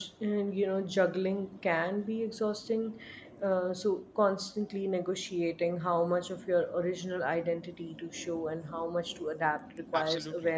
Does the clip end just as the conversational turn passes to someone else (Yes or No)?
Yes